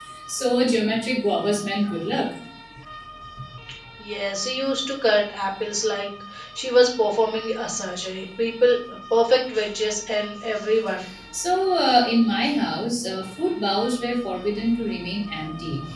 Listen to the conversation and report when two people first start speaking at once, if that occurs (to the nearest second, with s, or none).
none